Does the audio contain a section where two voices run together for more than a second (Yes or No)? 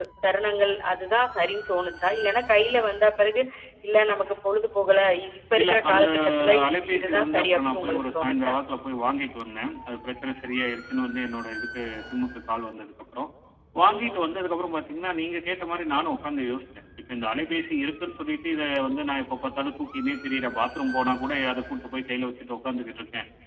Yes